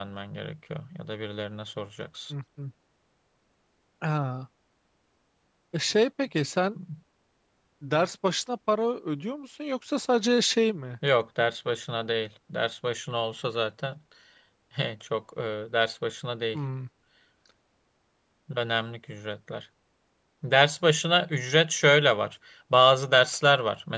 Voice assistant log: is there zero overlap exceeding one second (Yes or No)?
Yes